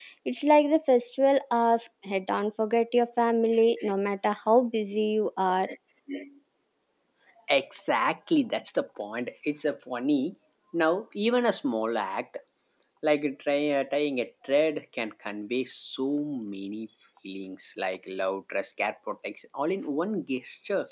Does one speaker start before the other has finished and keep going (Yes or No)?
No